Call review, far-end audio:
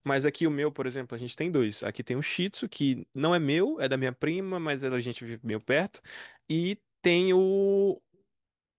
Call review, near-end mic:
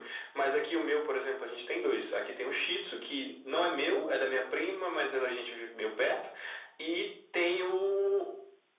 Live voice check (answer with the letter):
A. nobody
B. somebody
A